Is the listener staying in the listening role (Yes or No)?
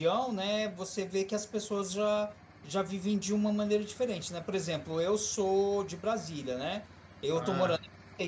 Yes